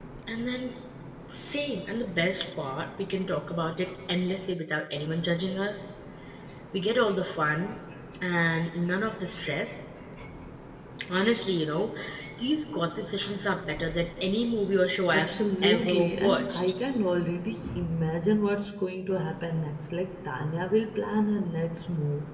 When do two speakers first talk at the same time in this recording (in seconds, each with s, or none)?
15.1 s